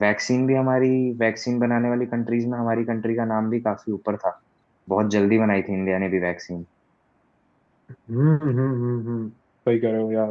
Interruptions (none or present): none